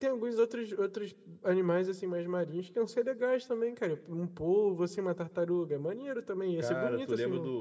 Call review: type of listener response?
taking over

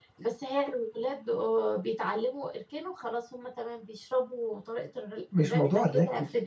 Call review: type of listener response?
taking over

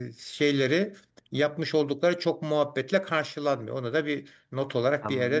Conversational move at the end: taking over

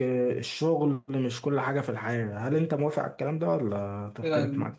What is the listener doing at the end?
taking over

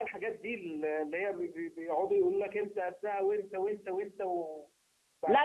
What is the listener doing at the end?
taking over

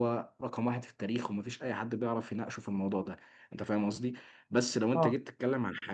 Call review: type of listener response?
listening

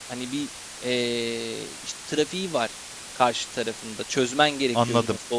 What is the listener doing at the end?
taking over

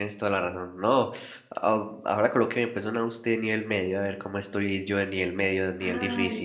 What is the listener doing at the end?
taking over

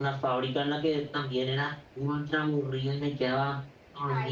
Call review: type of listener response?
listening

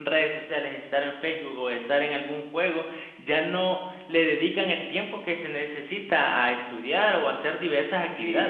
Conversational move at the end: taking over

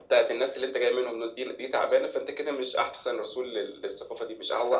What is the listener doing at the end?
taking over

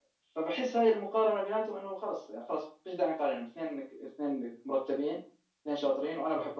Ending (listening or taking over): listening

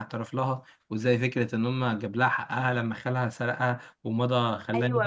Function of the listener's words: taking over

